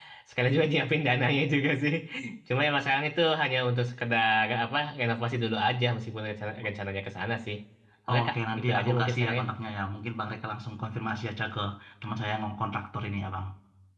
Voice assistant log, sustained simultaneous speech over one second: present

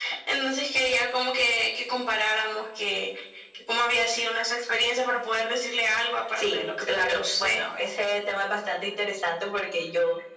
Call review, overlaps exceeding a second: present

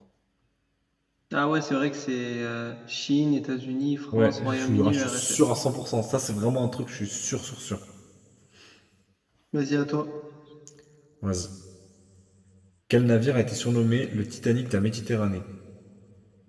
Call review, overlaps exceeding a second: present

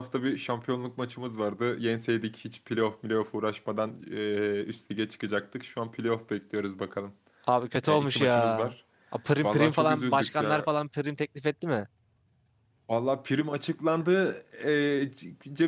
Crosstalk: present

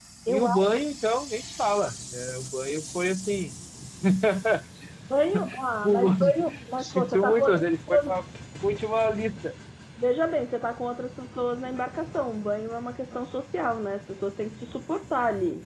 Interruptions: present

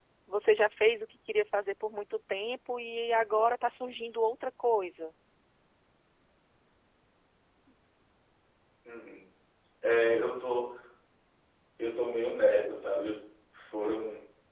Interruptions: none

